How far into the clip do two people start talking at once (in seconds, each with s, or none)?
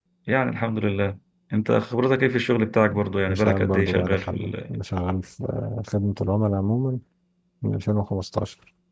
3.2 s